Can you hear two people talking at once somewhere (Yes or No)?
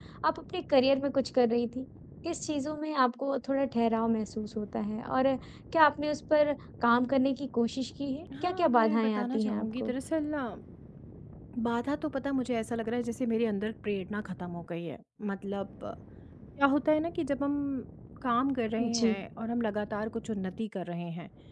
Yes